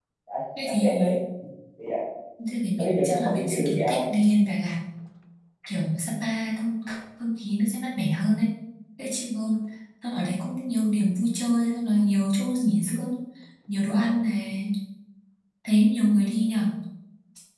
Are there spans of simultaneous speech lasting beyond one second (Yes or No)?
Yes